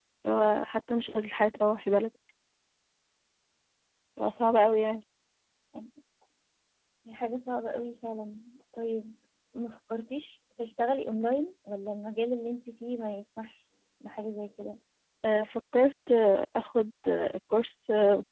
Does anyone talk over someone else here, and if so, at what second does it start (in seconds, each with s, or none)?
none